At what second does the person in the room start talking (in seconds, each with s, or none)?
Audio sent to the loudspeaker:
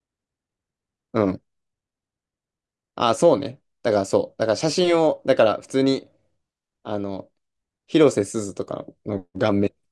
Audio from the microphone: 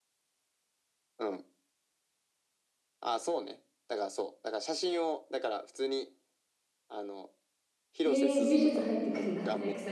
8.0 s